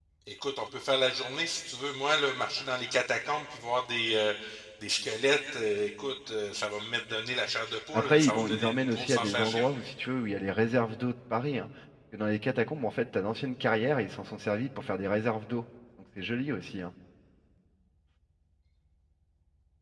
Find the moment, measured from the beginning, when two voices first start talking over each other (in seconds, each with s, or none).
7.9 s